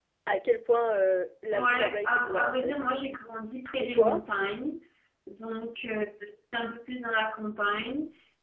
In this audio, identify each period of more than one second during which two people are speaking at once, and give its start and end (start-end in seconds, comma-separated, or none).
1.5-2.7